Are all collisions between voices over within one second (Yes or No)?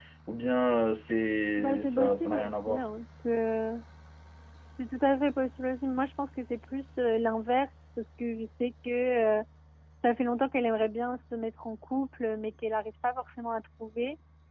No